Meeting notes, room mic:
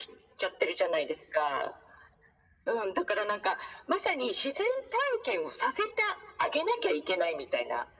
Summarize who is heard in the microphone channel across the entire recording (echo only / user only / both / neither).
echo only